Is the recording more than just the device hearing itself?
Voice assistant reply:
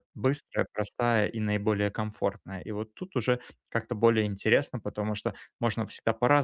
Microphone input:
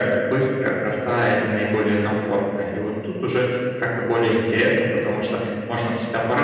No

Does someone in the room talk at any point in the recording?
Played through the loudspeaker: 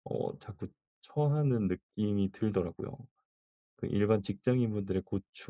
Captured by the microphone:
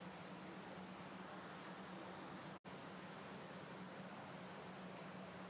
No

